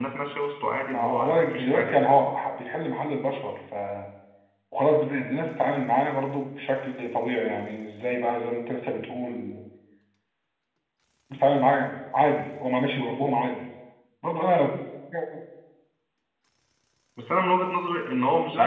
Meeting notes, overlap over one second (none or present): present